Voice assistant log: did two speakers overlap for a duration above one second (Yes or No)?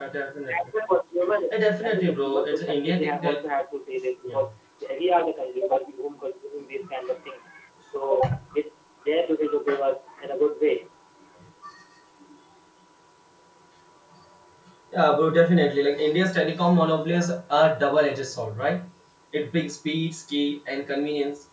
Yes